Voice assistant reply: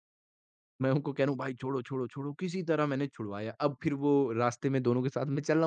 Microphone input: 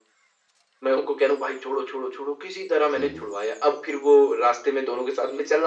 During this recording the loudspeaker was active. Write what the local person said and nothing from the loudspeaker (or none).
हुँ, हुँ।